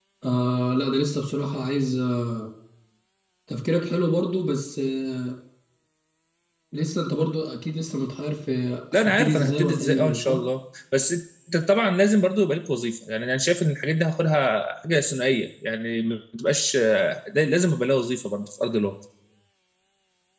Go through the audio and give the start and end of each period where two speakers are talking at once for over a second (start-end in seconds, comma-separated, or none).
8.9-10.4